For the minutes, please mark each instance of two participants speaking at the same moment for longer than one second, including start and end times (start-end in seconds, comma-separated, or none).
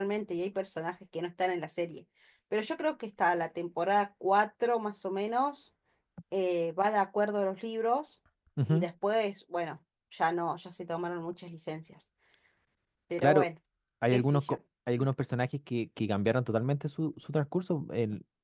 none